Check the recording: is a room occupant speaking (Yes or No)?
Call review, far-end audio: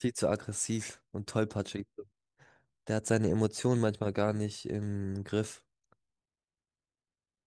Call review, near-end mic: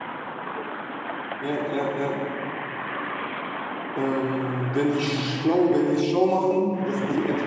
Yes